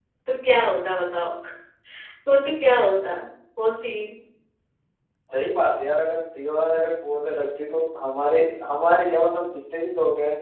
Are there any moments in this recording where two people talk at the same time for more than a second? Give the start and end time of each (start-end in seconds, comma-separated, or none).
none